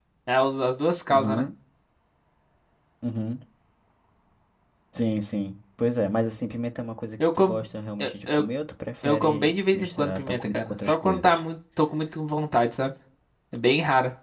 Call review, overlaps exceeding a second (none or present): present